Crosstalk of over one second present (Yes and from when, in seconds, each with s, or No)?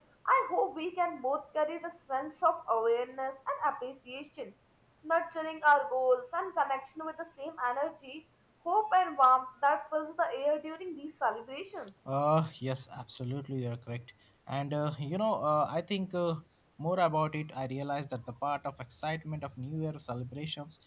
No